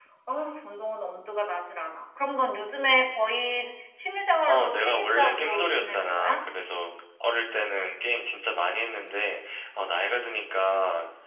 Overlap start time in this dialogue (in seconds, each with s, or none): 4.5 s